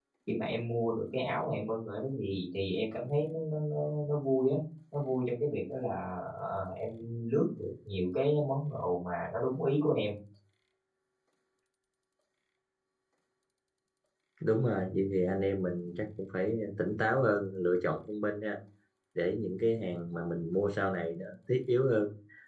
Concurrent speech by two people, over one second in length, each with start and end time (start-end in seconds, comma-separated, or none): none